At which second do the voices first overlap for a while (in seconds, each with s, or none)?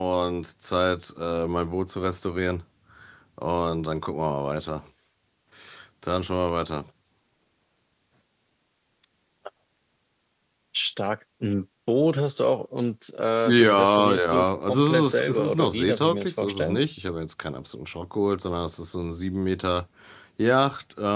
13.4 s